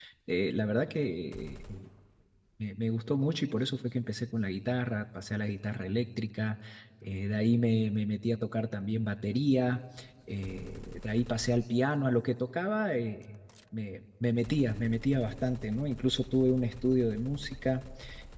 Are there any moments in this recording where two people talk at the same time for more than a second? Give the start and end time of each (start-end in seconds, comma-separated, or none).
none